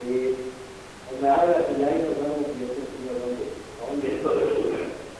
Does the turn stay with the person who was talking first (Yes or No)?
No